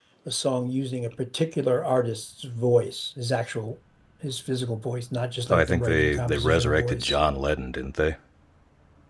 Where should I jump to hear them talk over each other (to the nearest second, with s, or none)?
5 s